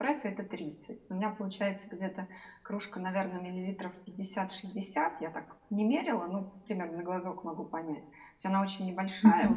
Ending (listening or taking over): listening